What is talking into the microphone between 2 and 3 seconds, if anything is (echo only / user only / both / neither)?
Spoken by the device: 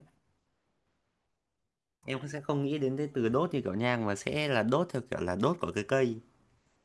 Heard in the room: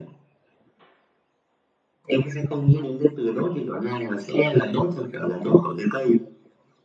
echo only